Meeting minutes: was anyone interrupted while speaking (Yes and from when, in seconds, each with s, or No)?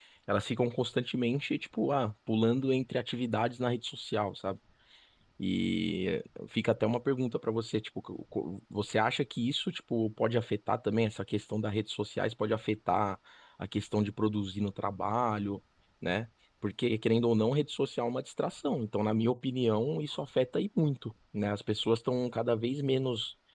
No